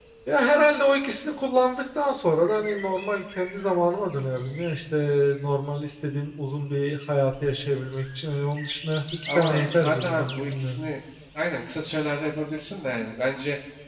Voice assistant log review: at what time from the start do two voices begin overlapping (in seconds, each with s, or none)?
9.3 s